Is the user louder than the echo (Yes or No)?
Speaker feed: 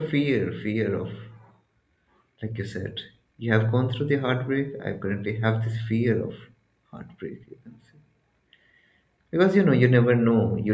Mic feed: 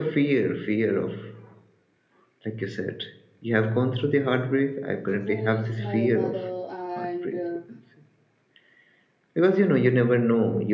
No